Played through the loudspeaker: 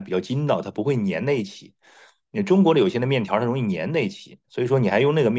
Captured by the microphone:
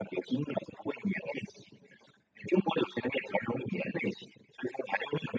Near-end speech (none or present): none